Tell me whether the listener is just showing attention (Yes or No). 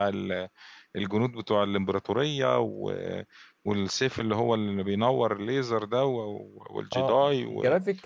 No